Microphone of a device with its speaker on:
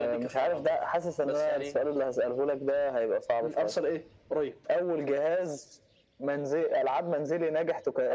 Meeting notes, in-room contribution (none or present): none